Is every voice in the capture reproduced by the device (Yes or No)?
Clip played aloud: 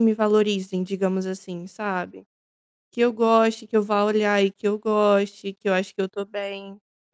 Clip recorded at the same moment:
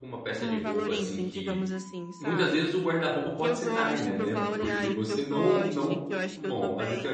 No